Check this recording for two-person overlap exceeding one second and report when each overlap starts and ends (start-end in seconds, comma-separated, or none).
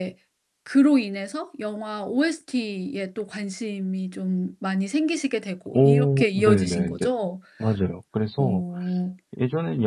5.7-7.1